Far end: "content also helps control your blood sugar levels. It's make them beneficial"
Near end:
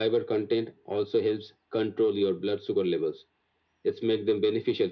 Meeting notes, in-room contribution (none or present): none